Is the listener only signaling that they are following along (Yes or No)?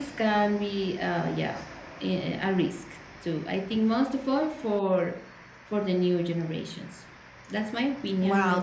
No